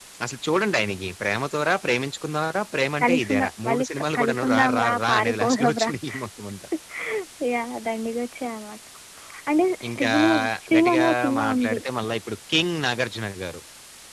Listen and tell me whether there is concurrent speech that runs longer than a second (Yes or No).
Yes